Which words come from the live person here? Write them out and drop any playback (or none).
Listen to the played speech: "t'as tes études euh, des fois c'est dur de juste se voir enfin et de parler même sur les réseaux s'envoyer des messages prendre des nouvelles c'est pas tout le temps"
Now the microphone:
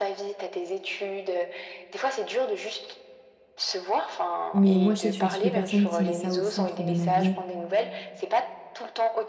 mais moi, je sais que je suis le type de personne qui met ça au centre de ma vie.